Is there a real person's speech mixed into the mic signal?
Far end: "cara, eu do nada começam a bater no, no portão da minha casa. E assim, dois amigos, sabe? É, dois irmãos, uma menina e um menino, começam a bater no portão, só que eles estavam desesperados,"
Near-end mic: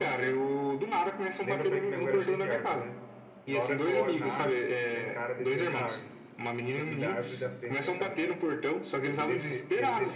Yes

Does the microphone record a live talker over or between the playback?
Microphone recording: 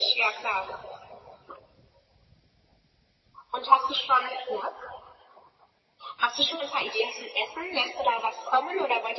No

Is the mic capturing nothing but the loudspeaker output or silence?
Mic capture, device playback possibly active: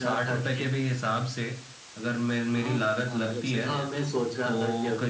No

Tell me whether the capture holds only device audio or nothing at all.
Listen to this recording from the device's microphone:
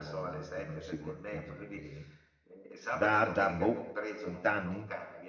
No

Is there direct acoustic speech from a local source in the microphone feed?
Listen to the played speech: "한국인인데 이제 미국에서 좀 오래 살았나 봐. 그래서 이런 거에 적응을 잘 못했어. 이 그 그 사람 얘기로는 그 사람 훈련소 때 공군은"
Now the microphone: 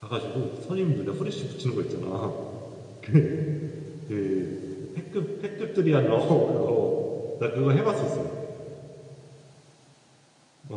Yes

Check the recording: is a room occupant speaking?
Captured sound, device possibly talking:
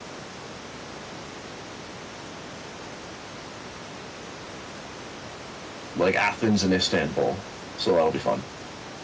Yes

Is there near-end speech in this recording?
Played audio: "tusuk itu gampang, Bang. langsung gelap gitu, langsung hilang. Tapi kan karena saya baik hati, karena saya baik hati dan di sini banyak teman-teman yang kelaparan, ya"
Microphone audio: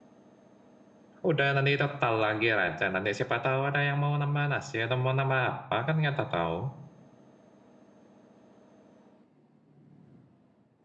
Yes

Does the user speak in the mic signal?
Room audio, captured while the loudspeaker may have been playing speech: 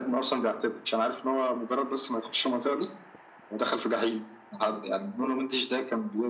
No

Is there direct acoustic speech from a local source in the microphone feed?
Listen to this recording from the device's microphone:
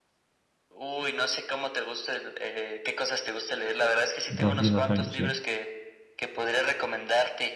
Yes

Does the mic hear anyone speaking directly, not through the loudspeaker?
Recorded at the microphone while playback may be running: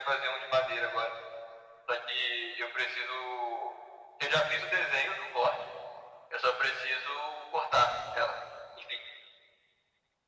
No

